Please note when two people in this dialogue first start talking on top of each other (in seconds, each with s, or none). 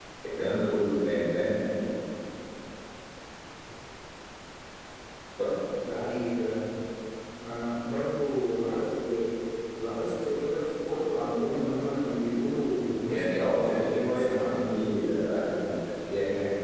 13.1 s